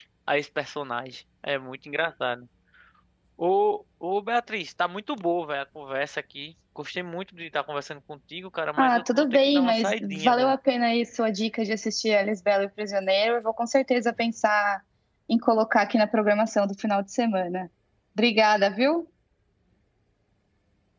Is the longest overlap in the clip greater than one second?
Yes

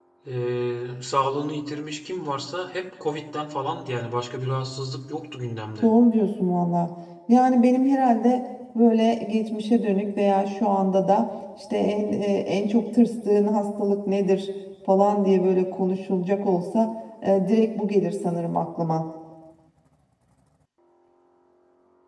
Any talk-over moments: No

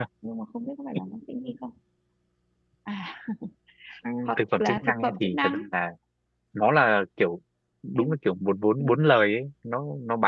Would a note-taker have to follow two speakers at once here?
Yes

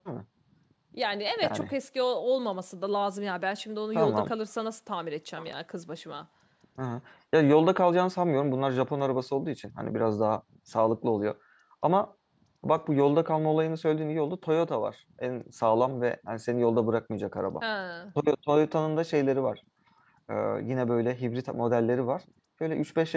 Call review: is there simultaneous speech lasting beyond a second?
No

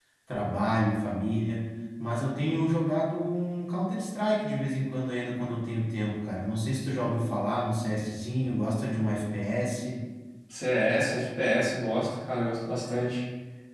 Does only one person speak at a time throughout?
Yes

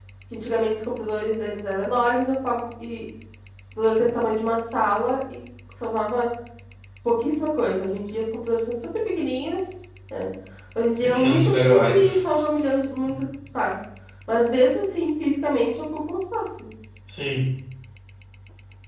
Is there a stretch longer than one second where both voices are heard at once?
Yes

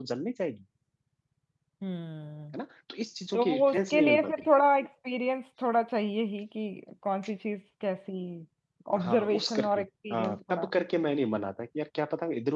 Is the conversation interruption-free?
No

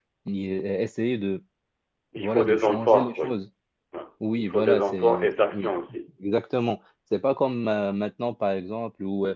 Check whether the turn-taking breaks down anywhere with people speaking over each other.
Yes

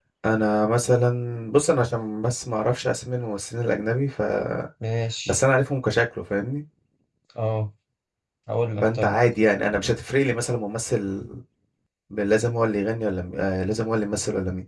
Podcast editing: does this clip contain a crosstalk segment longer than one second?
No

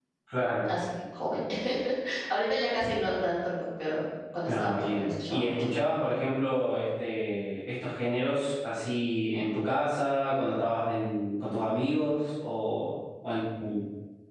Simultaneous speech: Yes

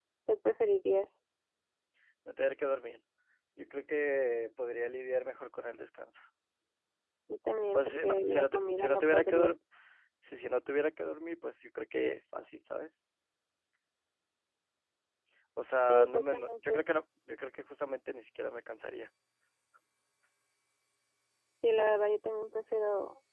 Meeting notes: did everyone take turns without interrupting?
No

